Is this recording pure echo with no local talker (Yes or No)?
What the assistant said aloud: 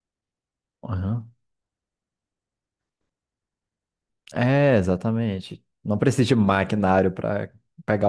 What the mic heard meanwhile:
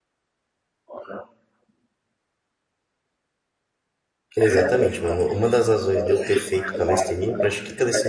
No